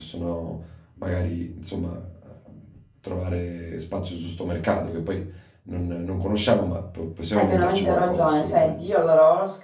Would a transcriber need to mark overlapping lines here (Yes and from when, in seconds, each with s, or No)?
Yes, from 7.3 s